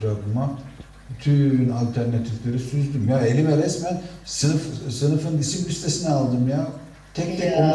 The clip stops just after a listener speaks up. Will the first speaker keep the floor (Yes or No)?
Yes